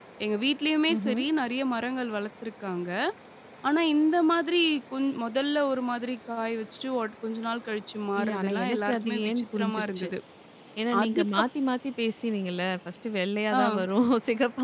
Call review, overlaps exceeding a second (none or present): present